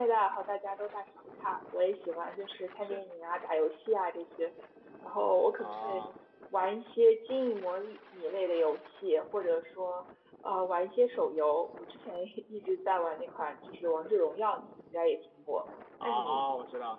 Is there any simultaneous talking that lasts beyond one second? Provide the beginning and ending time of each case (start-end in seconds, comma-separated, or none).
none